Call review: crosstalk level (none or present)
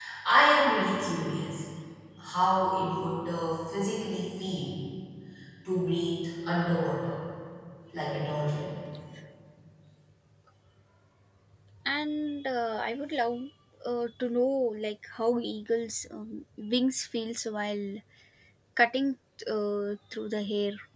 none